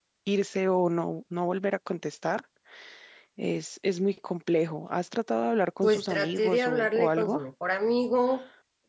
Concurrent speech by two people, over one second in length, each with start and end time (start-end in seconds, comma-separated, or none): 5.8-7.4